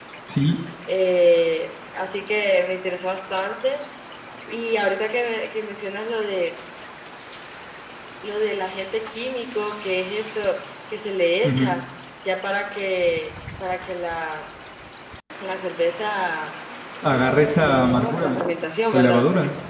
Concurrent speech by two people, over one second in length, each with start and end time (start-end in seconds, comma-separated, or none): 17.0-18.4